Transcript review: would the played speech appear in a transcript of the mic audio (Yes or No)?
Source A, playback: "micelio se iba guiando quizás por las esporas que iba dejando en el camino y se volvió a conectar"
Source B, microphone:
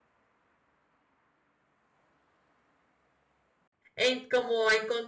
No